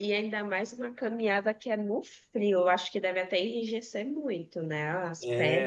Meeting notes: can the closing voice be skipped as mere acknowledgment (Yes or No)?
No